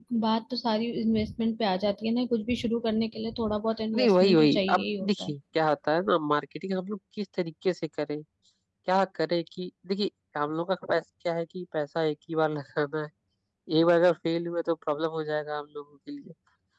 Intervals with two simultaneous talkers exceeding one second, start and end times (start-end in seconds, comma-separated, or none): 3.9-5.3